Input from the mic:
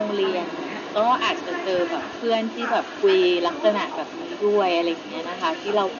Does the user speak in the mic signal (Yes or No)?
Yes